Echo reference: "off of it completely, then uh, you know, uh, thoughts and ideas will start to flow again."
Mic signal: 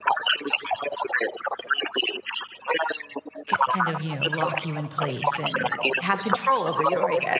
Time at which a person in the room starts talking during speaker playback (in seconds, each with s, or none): 3.5 s